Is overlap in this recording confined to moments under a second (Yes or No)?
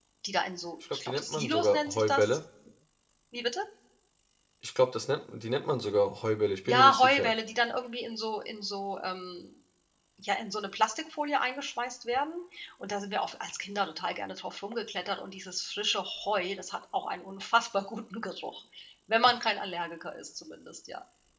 No